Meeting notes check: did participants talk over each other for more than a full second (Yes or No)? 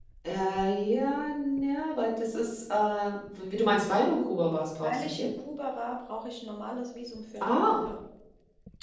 No